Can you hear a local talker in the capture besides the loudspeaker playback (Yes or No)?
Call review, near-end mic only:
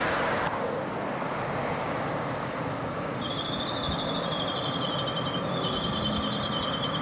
No